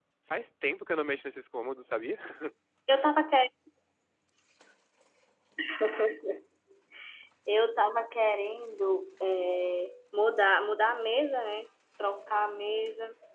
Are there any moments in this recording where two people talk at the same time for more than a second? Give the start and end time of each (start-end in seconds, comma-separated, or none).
none